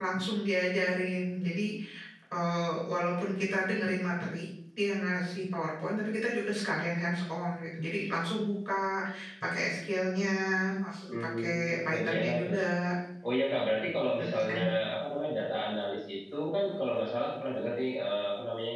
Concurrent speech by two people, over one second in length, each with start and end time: 11.1-12.5

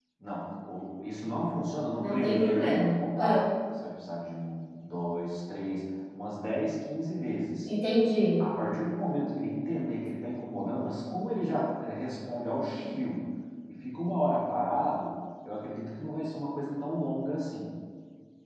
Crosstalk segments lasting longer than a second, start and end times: 2.0-3.5

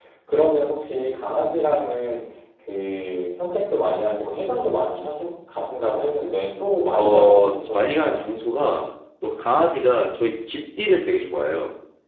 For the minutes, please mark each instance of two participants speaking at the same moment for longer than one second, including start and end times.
6.9-8.2

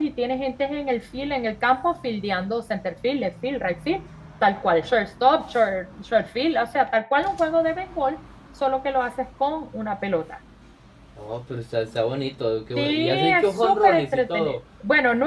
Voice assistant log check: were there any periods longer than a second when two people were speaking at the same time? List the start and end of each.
12.8-14.6

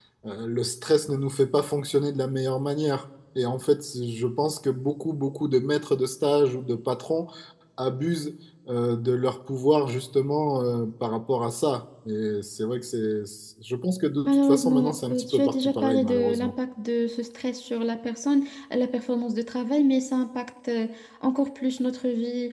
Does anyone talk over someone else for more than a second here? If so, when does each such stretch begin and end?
14.3-16.5

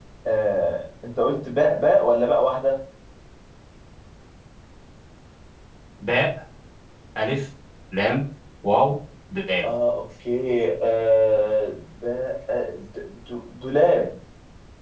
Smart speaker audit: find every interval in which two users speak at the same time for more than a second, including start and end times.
none

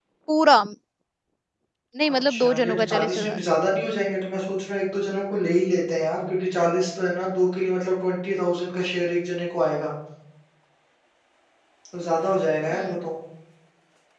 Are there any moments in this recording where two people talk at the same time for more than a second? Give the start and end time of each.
2.1-3.4

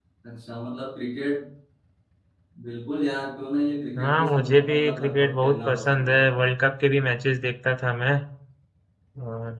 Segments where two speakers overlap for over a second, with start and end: 4.0-6.2

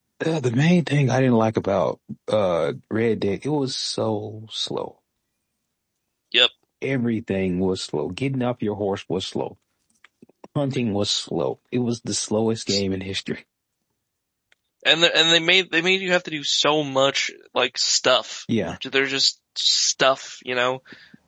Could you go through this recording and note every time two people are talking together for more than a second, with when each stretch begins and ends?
none

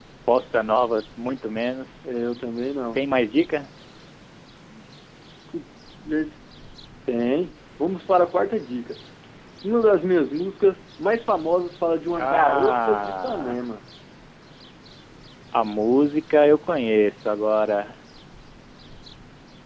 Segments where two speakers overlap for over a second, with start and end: 12.1-13.7

